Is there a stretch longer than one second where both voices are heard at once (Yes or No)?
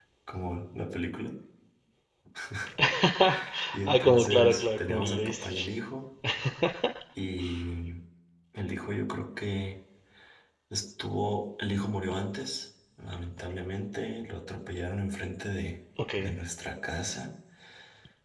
Yes